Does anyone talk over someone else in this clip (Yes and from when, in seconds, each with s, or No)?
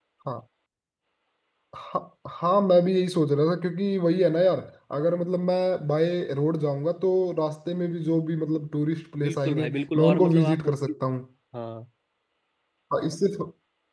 Yes, from 9.2 s